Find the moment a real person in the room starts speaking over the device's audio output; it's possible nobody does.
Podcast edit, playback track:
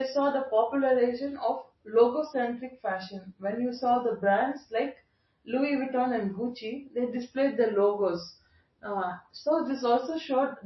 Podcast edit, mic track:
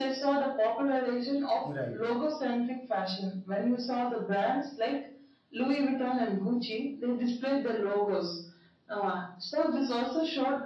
1.6 s

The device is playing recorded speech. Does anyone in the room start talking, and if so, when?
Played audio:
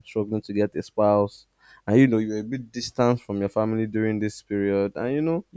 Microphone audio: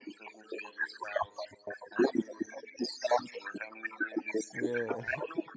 4.5 s

